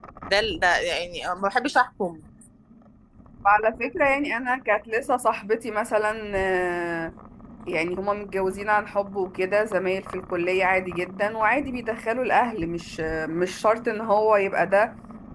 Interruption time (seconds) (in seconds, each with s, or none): none